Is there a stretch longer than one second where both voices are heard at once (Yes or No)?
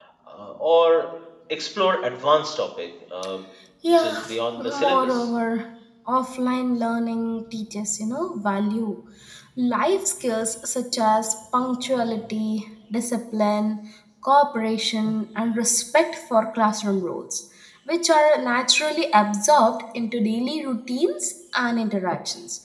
Yes